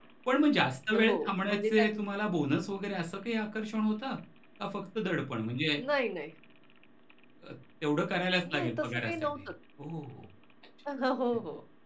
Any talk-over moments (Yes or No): Yes